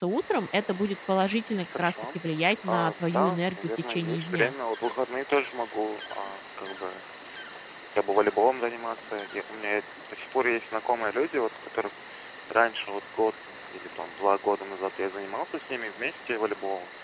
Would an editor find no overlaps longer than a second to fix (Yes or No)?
No